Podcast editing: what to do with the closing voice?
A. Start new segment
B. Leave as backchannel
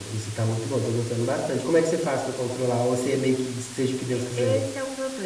A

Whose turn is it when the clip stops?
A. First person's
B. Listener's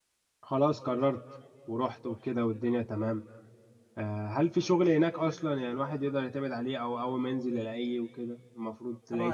B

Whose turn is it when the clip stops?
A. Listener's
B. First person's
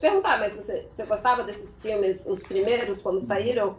A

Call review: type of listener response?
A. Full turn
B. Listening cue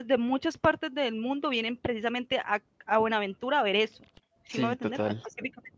B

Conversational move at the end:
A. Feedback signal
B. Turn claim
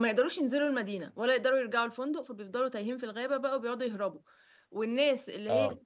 A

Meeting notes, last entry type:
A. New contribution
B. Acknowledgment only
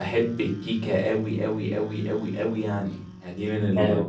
A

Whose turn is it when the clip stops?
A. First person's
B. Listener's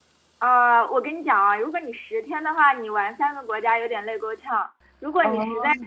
A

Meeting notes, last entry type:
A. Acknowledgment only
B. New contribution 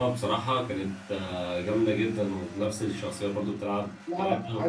B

